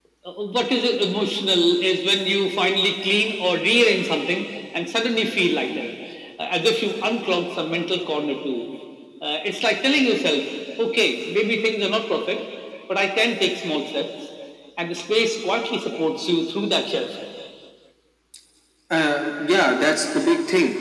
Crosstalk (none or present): none